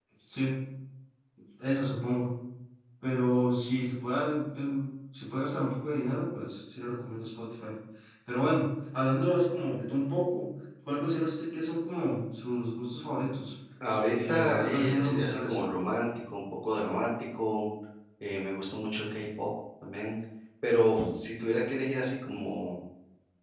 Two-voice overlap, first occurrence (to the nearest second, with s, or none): 14 s